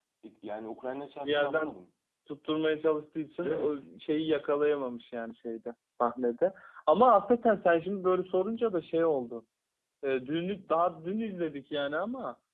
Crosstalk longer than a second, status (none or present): none